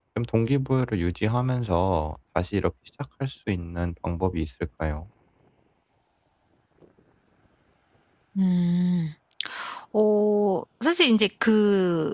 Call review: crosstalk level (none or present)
none